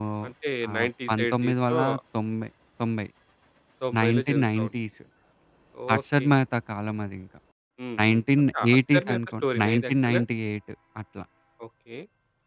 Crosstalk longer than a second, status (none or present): present